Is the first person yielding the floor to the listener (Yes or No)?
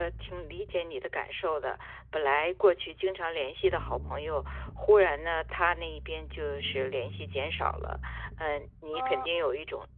No